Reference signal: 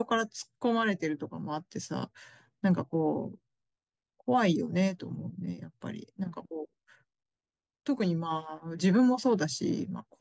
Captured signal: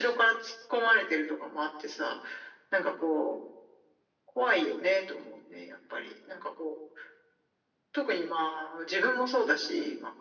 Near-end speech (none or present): none